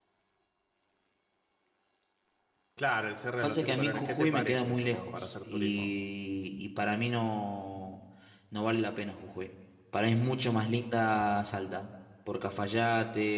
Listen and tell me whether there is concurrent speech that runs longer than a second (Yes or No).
Yes